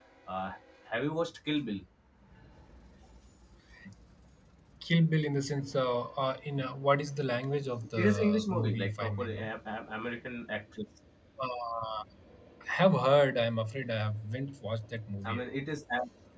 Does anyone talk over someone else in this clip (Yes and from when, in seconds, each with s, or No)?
Yes, from 8.0 s